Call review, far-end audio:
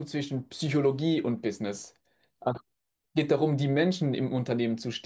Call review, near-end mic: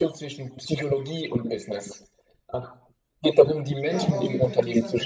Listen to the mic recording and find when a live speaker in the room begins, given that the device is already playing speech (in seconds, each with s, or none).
3.8 s